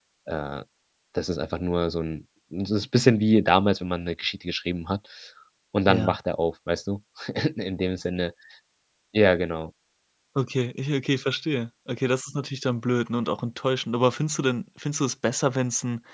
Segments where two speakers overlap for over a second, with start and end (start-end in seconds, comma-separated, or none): none